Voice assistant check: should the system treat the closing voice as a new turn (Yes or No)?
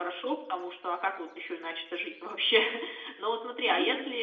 No